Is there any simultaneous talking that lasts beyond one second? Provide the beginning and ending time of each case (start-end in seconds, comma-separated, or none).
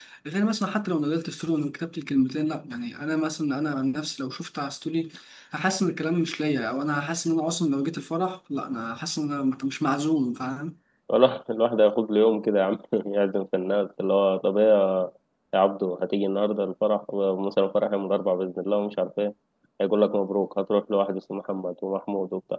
none